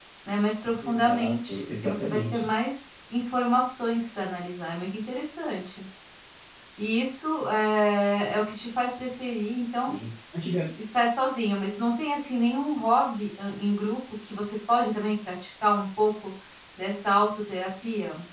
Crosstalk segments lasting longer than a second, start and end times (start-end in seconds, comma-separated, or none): 0.9-2.5